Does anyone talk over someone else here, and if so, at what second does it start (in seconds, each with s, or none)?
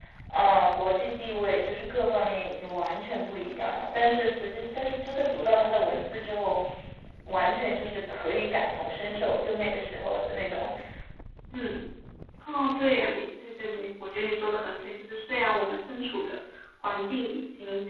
none